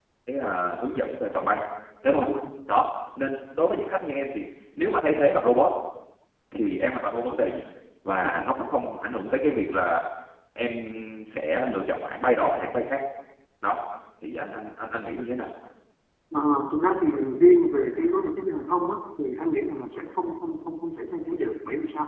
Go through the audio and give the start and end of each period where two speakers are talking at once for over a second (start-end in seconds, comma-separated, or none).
none